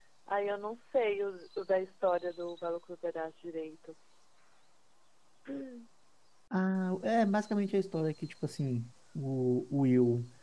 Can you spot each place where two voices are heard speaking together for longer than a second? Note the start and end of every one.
none

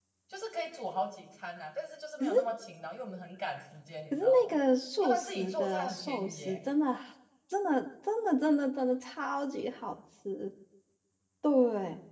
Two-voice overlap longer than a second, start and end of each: 5.0-6.6

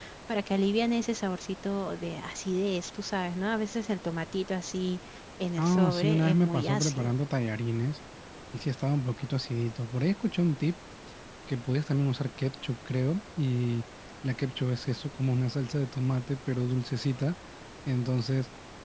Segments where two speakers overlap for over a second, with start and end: 5.6-7.1

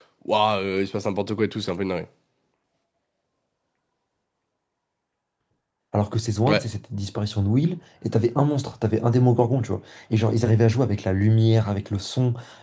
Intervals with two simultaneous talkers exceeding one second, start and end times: none

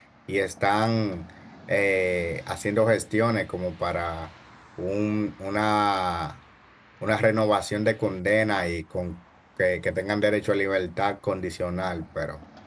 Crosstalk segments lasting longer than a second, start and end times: none

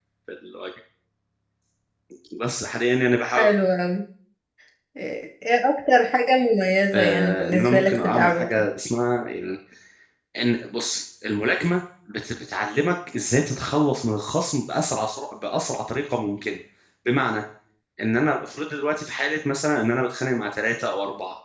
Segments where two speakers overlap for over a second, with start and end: 6.9-8.6

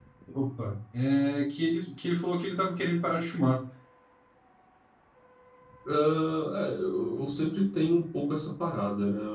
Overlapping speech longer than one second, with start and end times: none

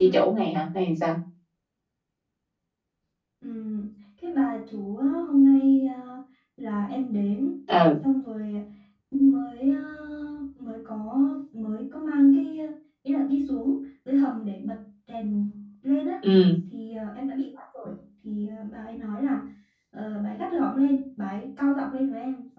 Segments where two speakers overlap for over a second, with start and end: none

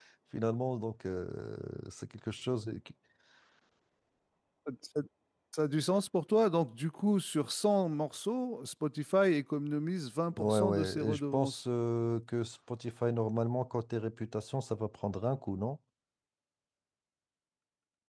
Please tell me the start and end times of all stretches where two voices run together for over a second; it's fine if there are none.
10.4-11.6

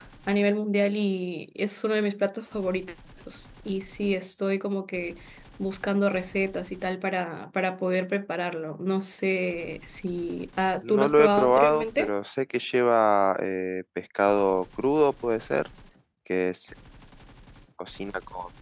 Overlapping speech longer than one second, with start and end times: 10.9-12.1

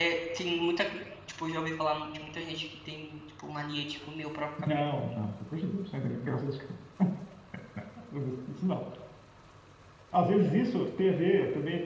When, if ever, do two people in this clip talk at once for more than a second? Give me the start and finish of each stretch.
none

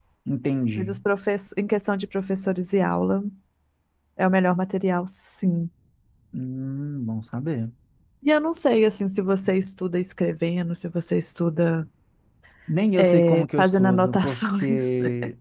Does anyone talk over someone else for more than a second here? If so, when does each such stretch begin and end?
12.9-14.8

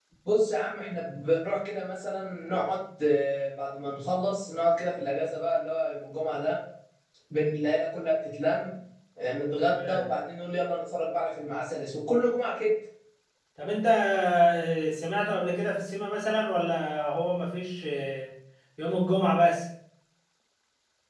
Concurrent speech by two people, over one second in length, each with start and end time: none

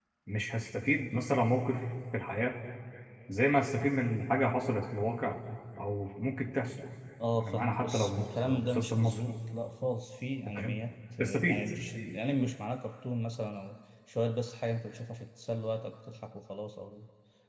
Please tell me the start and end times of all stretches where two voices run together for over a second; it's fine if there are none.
7.4-9.3

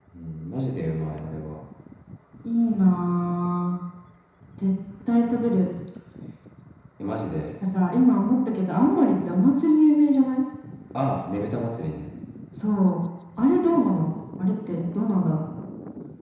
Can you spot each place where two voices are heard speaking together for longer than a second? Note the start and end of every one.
none

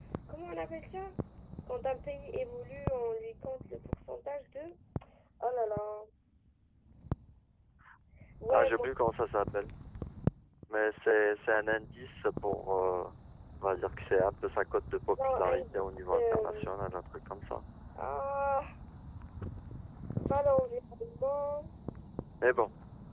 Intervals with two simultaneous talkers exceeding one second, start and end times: 15.2-16.7

